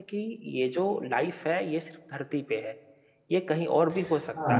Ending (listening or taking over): taking over